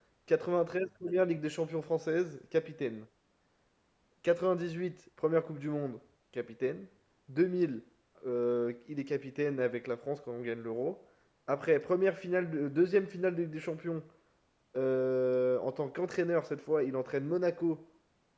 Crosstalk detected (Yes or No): No